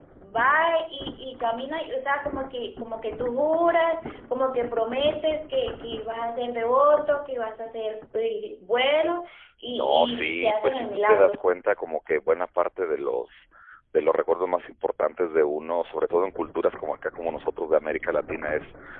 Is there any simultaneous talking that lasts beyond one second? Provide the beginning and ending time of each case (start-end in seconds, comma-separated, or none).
9.7-11.4